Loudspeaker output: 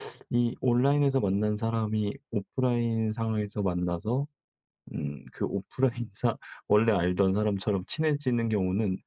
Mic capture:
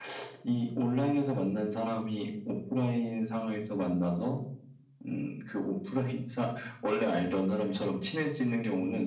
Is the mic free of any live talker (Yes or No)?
Yes